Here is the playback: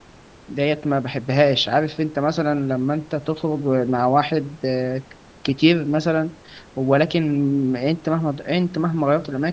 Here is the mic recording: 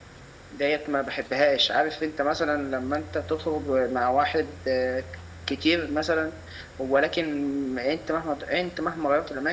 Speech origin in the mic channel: echo only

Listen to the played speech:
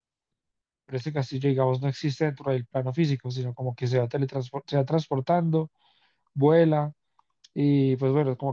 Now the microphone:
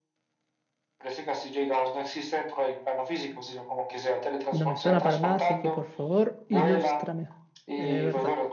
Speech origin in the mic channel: both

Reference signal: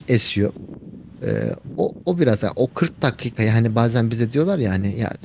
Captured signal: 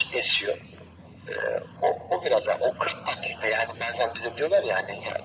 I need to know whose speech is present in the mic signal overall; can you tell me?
echo only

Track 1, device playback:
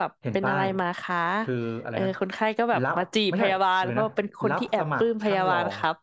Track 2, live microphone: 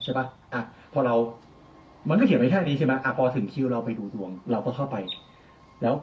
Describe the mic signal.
user only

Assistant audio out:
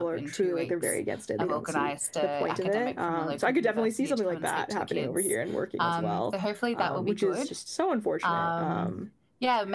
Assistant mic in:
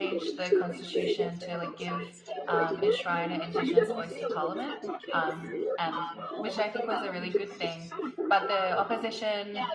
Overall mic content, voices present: both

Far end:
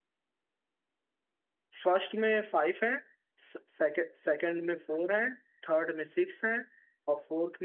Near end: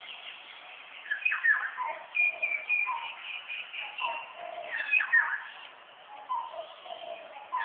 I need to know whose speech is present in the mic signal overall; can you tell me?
neither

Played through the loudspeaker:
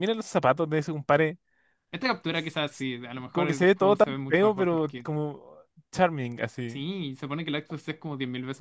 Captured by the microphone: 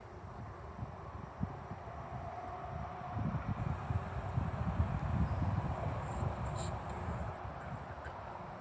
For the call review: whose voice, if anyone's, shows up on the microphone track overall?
neither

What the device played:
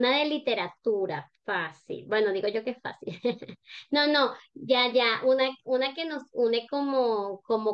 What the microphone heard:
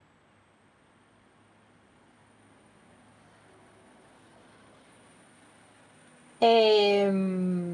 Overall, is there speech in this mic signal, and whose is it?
user only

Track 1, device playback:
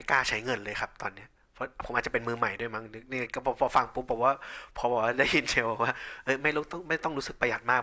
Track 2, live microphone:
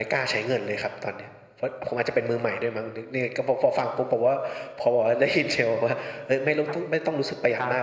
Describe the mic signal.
both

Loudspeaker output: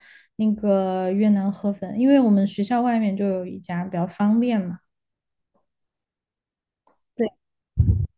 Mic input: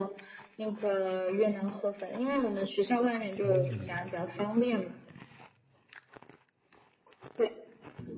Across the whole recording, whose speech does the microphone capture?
both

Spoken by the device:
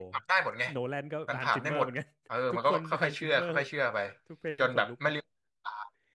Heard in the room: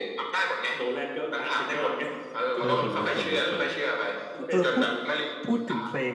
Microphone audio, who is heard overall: both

